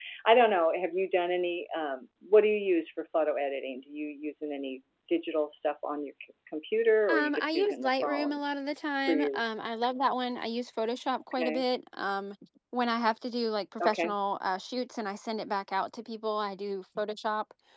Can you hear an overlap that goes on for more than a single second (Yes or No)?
Yes